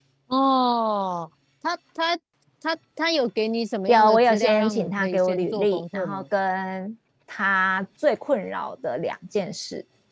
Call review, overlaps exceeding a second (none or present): present